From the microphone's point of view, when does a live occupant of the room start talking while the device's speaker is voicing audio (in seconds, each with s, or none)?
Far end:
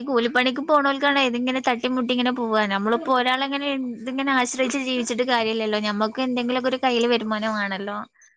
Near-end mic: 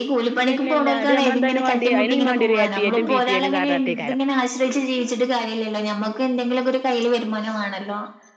0.3 s